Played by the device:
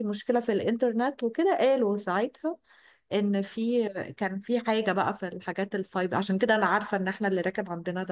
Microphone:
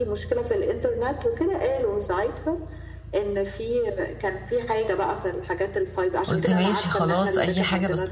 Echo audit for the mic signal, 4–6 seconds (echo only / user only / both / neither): echo only